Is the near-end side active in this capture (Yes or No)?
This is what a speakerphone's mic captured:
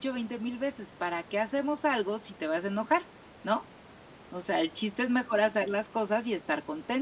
No